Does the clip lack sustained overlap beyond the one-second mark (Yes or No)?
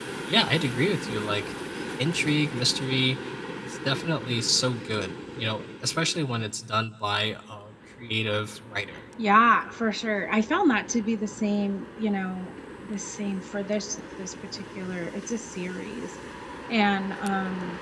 Yes